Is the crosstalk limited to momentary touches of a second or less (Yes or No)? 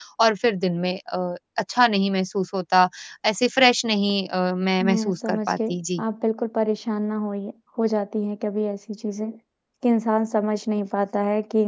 No